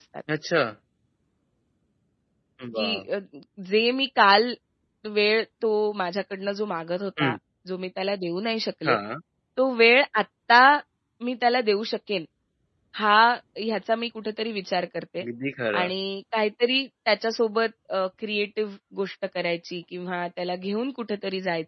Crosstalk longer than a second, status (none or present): none